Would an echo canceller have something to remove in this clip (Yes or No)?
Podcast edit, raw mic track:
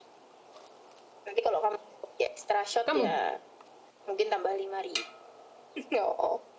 Yes